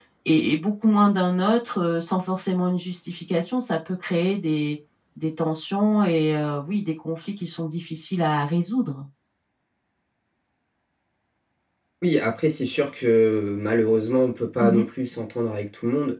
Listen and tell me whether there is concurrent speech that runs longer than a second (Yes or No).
No